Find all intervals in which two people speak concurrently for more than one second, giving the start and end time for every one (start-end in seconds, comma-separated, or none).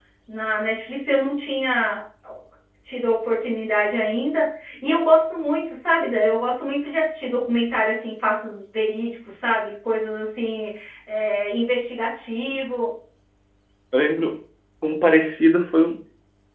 none